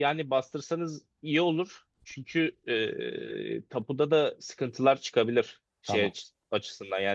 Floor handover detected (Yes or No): No